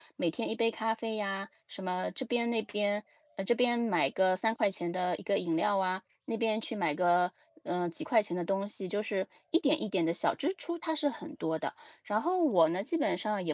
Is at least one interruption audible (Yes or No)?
No